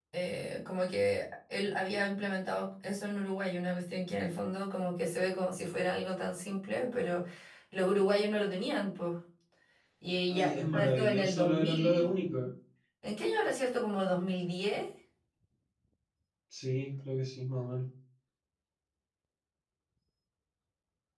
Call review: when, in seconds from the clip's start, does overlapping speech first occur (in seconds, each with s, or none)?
10.3 s